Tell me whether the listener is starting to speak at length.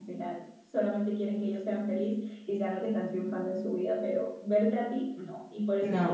No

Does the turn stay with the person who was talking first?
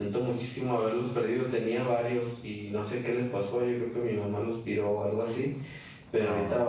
Yes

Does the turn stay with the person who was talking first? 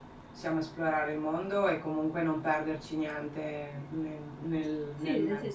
No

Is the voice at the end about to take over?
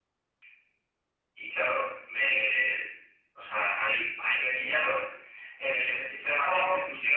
No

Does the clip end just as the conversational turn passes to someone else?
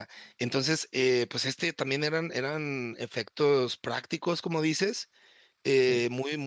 No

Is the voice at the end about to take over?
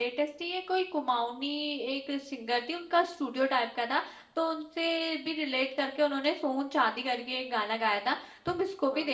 No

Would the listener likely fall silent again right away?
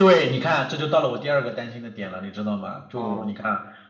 Yes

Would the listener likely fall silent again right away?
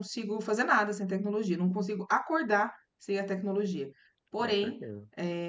Yes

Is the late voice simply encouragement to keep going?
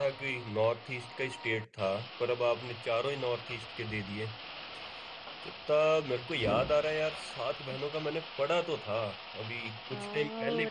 No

